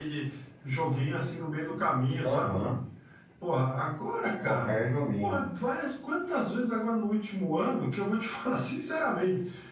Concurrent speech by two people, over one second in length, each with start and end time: none

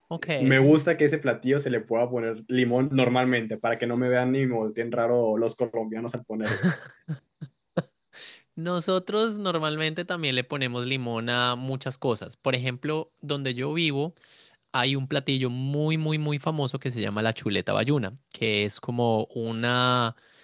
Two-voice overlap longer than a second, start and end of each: none

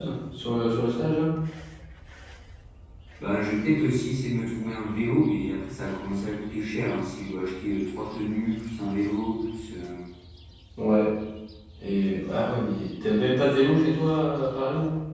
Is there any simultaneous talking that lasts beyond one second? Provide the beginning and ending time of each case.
none

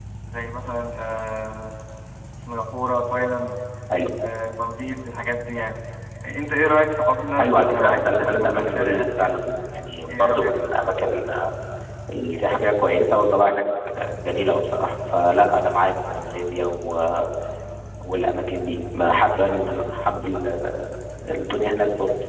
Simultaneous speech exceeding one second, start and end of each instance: 7.4-9.3

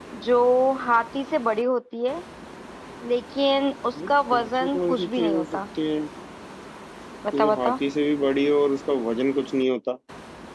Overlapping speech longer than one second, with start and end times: 4.1-5.6

